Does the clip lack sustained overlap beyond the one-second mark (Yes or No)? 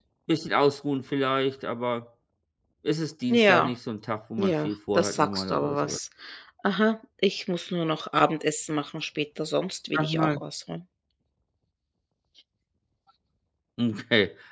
No